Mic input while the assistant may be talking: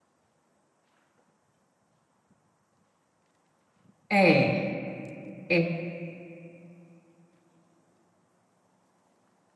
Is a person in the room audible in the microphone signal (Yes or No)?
Yes